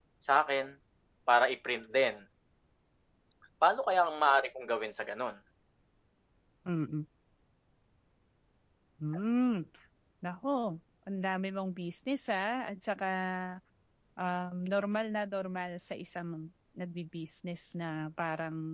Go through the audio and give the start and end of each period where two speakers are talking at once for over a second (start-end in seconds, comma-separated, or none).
none